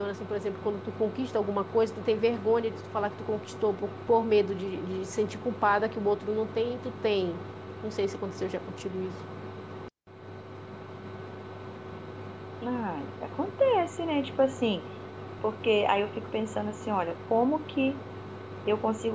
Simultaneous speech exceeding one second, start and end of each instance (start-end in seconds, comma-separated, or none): none